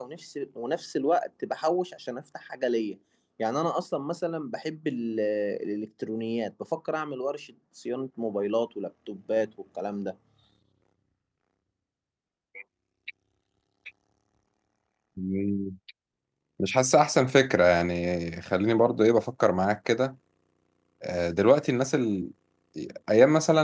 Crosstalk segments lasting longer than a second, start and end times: none

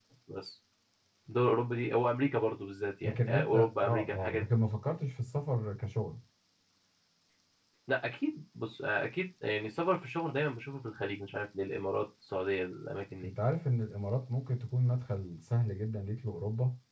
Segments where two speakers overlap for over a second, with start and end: 3.0-4.4

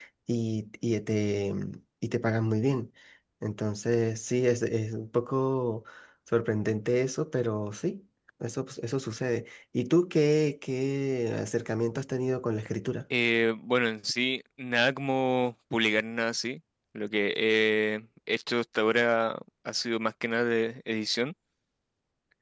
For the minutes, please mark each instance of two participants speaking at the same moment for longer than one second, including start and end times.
none

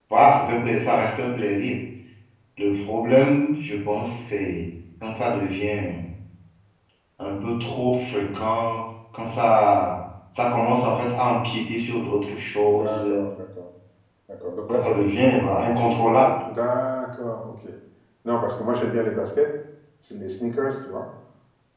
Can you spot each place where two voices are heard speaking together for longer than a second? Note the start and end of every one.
none

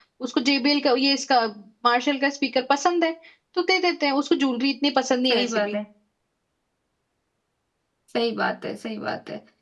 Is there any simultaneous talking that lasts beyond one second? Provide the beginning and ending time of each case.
none

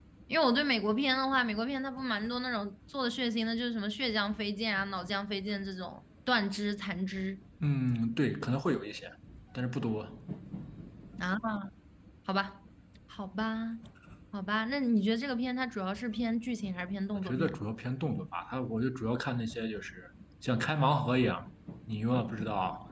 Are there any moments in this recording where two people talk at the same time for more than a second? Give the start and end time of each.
none

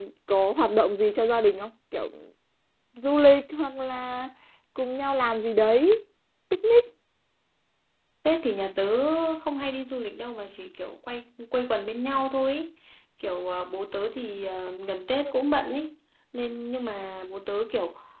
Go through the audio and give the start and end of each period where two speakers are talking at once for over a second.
none

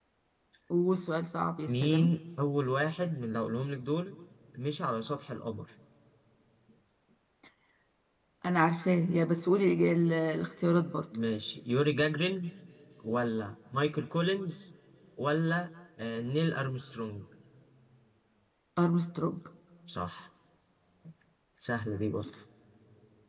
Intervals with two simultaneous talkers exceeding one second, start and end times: none

